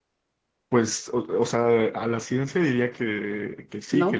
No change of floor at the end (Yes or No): Yes